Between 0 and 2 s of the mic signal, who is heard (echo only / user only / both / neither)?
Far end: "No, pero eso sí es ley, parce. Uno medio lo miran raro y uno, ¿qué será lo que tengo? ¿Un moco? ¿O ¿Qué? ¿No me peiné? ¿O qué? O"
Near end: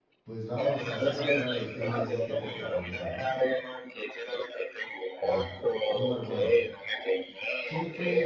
both